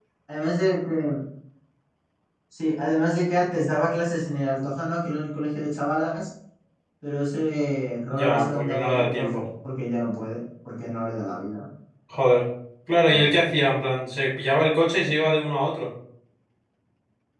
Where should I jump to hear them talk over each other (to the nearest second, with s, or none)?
8 s